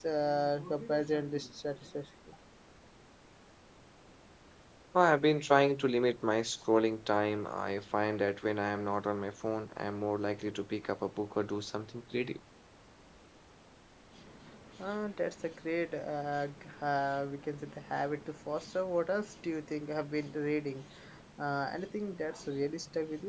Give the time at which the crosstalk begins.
none

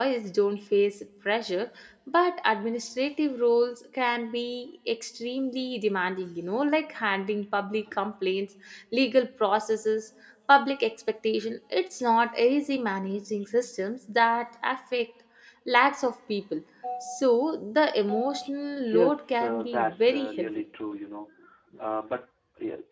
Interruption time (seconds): 18.8 s

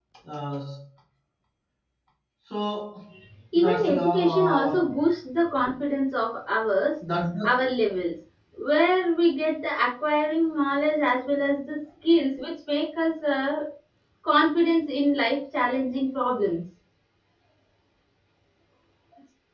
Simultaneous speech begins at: 3.5 s

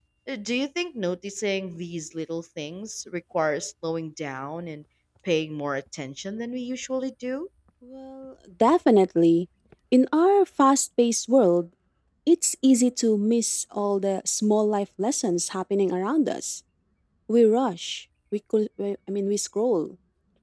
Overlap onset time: none

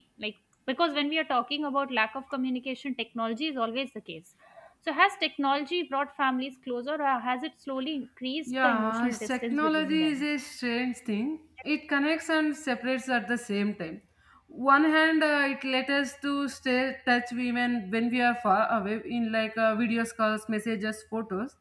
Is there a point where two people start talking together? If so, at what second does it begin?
8.5 s

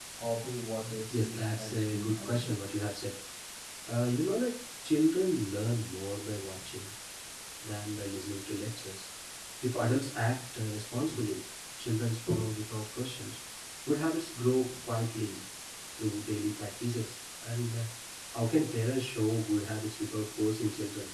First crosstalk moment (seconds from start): 1.1 s

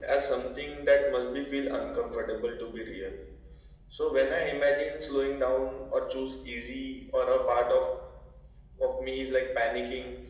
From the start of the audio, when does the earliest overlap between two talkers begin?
none

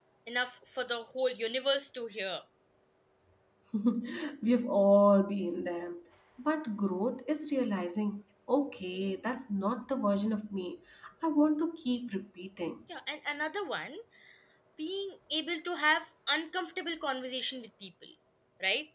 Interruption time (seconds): none

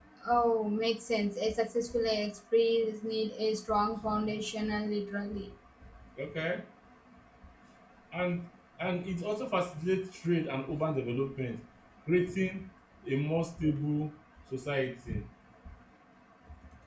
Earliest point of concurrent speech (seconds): none

